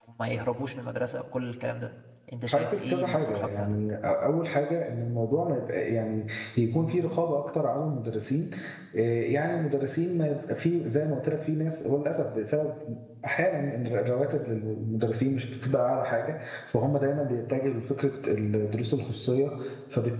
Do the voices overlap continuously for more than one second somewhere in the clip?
Yes, from 2.5 s

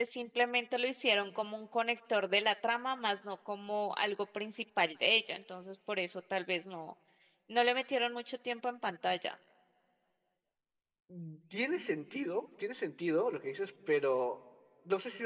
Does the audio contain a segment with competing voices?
No

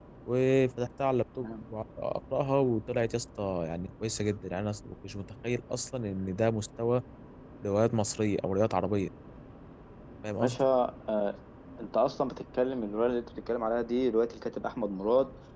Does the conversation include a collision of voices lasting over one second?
No

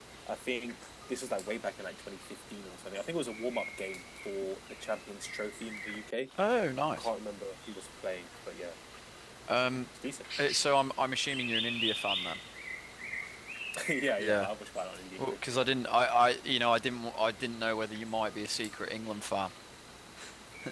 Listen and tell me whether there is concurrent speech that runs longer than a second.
No

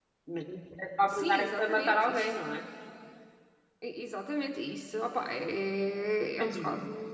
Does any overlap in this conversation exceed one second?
Yes, from 1.1 s

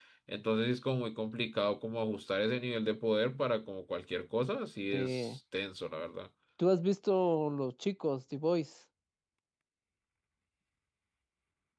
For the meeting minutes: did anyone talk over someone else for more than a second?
No

